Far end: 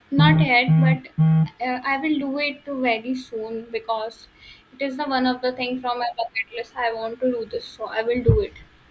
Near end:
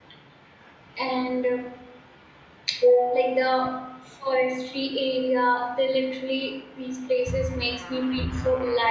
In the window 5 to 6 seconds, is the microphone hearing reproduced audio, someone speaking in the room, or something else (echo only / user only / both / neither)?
user only